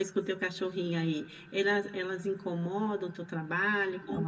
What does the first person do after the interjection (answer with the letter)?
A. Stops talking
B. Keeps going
A